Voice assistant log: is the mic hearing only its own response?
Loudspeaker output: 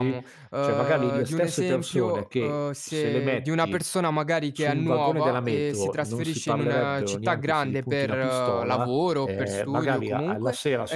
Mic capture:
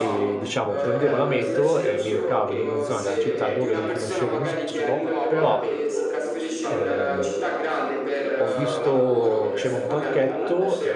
No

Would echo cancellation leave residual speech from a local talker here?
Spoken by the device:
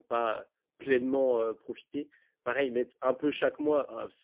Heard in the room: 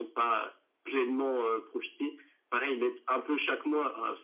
No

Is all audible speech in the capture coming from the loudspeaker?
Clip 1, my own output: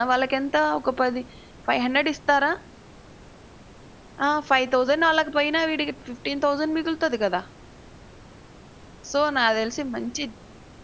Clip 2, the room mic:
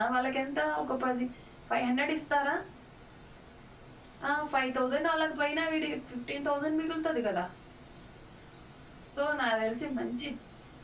Yes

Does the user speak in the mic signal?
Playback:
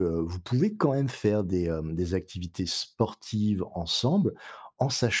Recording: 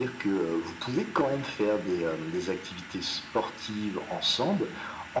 No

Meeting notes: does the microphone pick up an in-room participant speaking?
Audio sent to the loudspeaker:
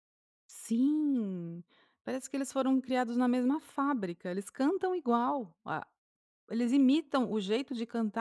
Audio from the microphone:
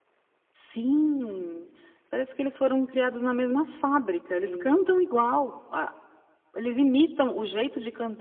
Yes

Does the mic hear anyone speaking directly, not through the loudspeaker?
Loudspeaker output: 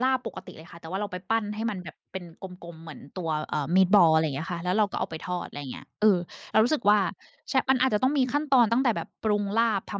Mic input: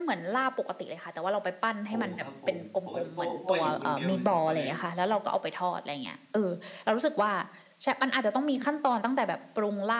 Yes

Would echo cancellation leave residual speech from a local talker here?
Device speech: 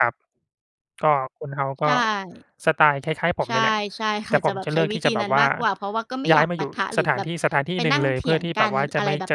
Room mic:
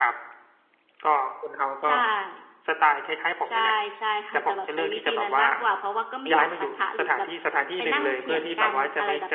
No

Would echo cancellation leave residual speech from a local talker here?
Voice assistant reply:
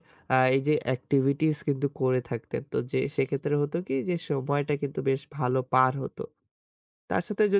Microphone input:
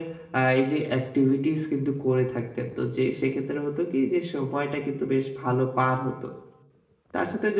No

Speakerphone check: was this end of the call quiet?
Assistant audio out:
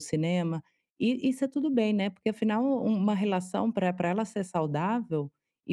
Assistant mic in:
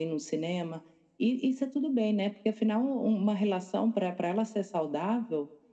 Yes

